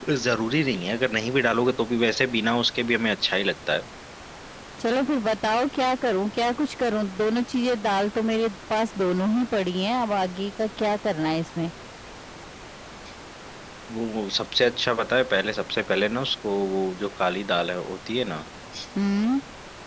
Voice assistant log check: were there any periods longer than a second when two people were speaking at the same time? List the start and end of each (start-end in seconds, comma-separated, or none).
none